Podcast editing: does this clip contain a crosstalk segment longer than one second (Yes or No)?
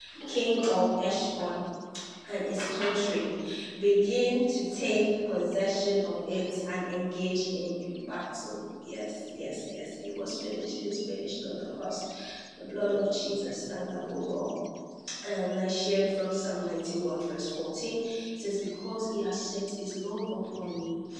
No